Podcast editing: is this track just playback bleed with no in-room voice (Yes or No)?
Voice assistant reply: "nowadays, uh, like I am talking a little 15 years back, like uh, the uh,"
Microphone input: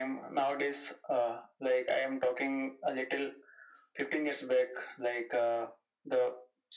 Yes